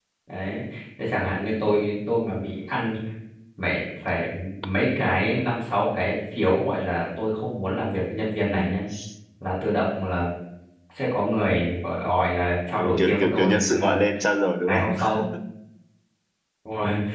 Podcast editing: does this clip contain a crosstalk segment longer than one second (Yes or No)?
Yes